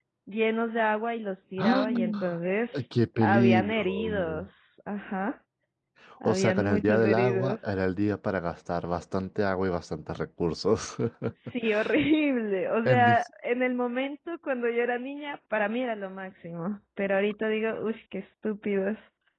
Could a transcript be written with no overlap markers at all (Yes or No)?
No